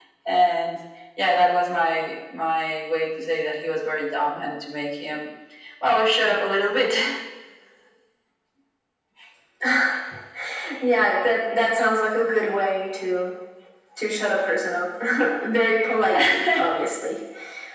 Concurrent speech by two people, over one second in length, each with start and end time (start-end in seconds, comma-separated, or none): none